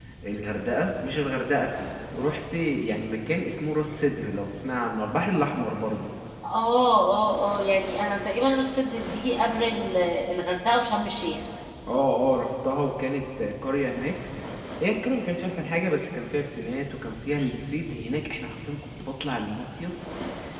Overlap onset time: none

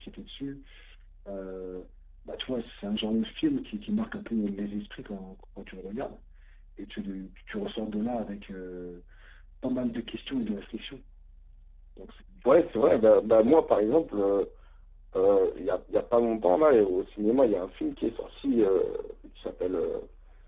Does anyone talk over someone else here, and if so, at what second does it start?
none

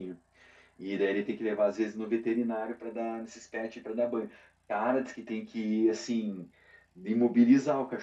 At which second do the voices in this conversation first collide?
none

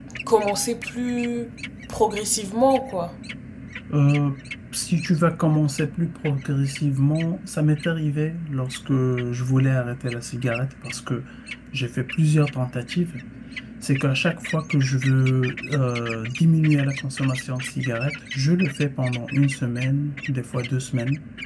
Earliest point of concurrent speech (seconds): none

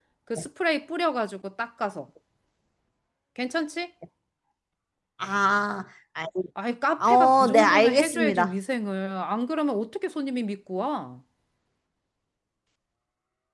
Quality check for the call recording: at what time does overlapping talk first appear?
7 s

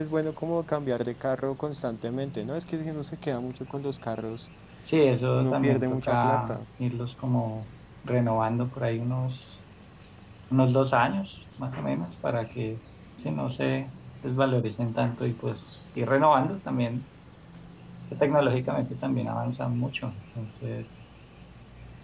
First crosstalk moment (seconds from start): 5 s

